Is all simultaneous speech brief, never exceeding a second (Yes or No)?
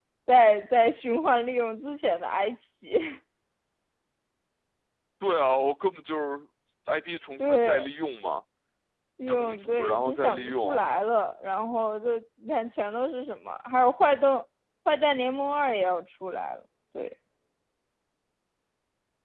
No